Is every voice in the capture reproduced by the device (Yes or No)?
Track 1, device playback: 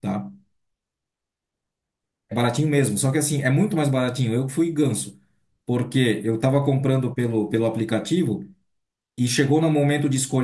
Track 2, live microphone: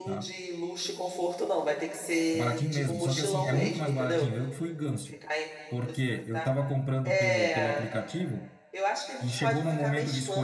No